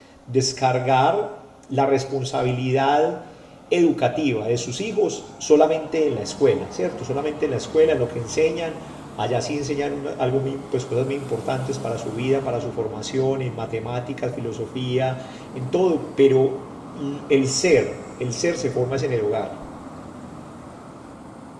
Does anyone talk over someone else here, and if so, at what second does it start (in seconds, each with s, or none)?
none